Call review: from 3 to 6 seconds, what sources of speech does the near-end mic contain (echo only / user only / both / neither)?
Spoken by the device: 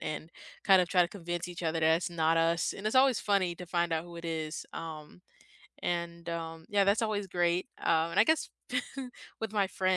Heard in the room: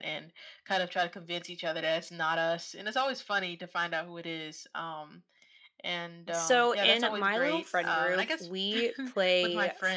echo only